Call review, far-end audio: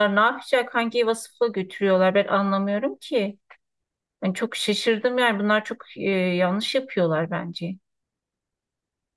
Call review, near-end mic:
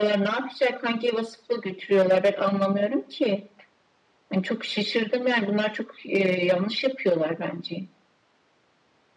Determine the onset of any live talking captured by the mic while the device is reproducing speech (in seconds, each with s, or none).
none